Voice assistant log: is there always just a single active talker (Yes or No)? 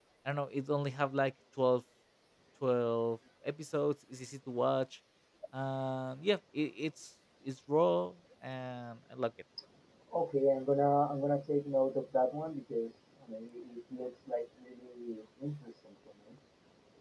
Yes